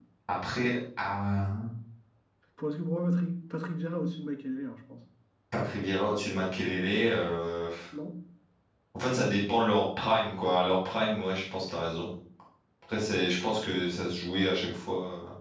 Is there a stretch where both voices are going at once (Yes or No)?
No